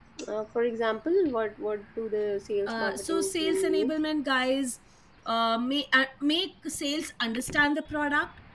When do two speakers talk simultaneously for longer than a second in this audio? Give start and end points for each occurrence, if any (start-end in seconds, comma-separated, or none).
2.7-3.9